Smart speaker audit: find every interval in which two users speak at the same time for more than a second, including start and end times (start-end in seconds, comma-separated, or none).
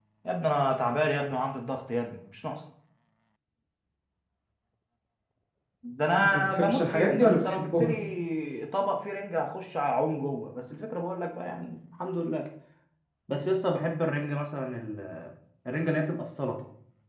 6.2-8.0